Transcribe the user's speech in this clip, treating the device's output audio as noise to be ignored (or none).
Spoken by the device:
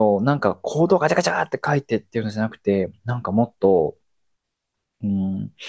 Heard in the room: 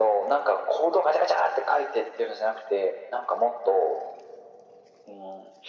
none